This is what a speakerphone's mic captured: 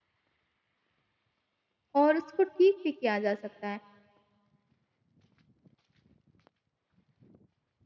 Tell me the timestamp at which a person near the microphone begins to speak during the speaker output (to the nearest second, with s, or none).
2 s